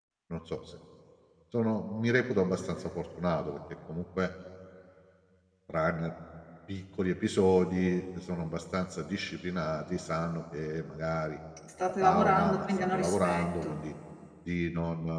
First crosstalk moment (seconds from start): 12 s

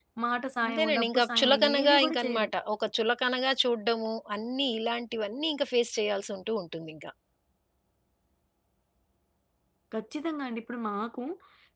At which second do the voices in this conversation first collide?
1 s

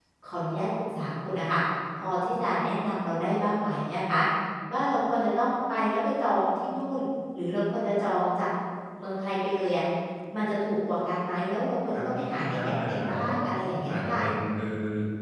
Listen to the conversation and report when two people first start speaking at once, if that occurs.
12 s

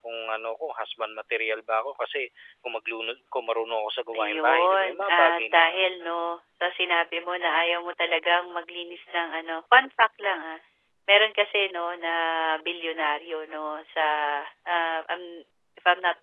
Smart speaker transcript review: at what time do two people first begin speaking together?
4 s

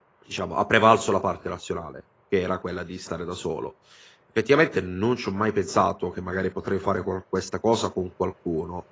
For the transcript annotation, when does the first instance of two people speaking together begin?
none

